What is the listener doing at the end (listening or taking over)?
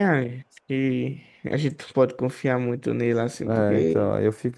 taking over